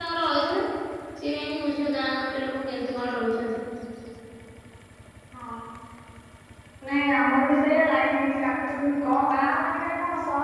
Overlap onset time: none

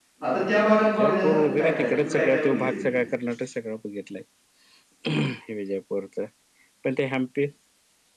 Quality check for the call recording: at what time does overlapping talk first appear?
0.8 s

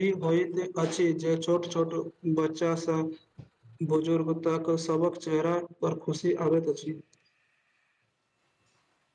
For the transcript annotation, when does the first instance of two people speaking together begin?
none

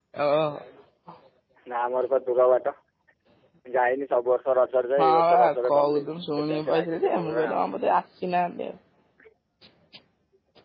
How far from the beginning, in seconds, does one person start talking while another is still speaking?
5.0 s

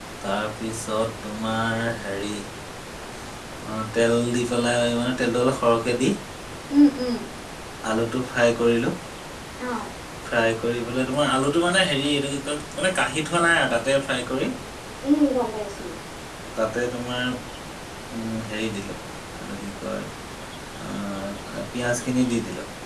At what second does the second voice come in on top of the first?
none

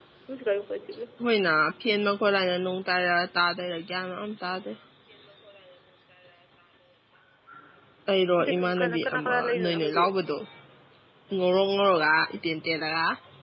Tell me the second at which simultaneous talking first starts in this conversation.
8.4 s

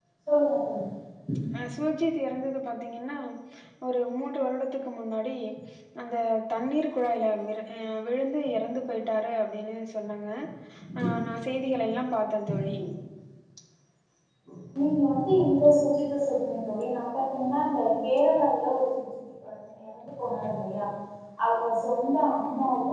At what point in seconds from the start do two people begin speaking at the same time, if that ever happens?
none

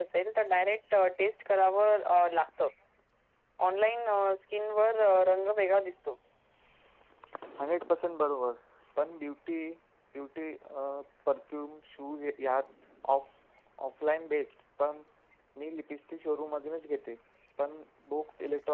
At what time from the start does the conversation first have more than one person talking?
none

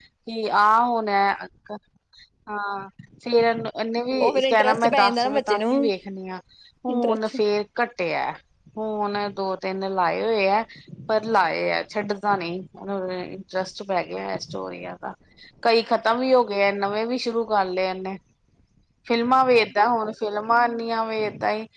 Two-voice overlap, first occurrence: 4.2 s

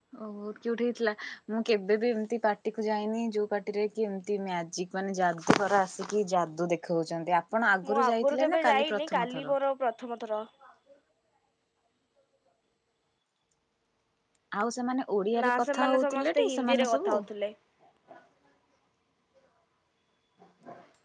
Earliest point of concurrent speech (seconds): 7.9 s

